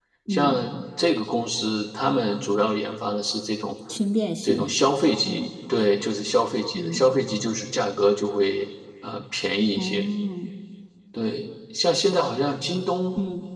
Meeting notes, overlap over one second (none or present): none